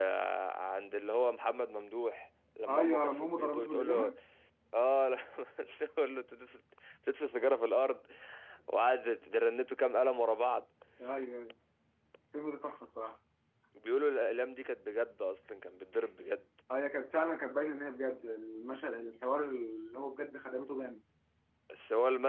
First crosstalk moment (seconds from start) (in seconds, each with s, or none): 2.7 s